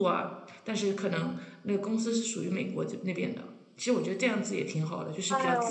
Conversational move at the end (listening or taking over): taking over